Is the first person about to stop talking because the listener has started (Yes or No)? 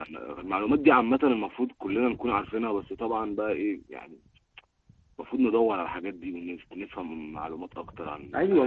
Yes